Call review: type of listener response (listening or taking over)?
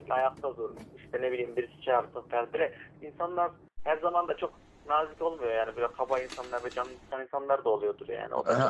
listening